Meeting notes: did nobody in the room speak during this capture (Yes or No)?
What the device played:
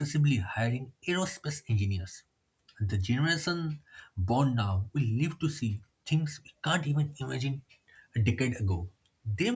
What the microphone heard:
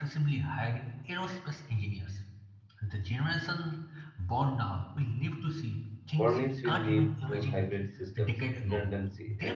No